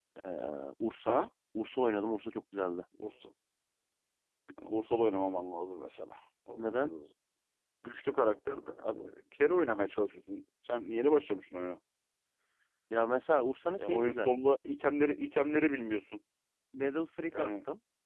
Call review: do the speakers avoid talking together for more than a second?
Yes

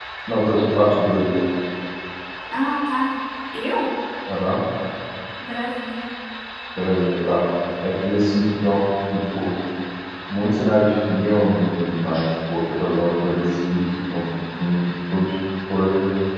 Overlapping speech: No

